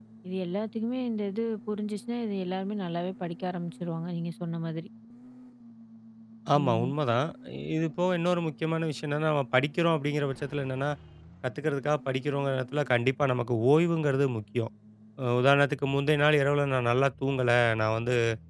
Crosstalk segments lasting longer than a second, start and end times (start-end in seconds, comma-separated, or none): none